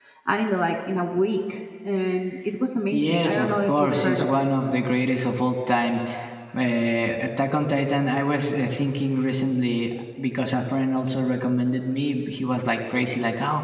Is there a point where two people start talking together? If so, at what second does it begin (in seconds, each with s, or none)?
2.9 s